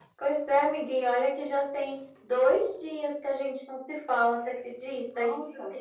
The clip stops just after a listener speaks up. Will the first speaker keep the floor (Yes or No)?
Yes